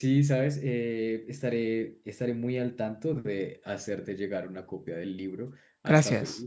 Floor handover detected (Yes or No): No